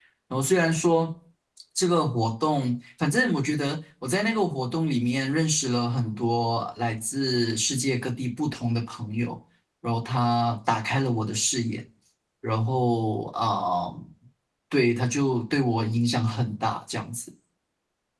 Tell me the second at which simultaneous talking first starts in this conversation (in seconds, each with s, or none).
none